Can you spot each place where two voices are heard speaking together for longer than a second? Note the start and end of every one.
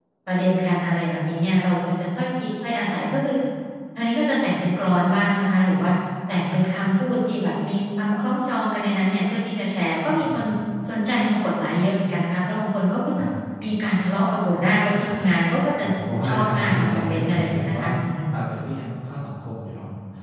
16.3-17.8

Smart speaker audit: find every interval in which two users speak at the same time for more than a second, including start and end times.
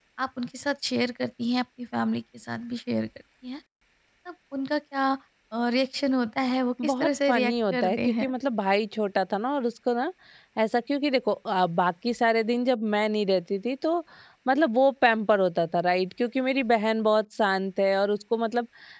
6.9-8.3

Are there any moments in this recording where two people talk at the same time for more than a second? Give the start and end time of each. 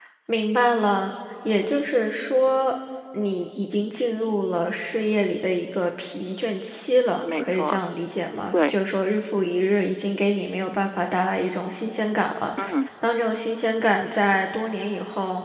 none

